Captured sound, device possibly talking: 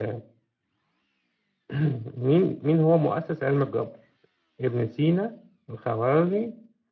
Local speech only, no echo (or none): none